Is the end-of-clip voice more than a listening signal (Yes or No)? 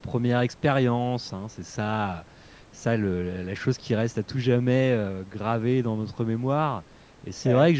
No